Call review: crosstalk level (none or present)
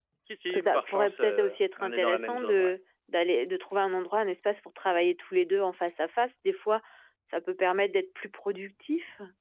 present